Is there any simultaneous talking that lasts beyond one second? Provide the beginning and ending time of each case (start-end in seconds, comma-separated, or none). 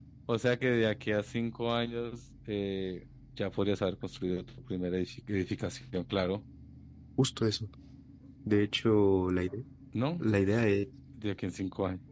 none